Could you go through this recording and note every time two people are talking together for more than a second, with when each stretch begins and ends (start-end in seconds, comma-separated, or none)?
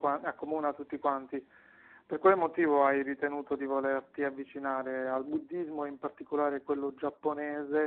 none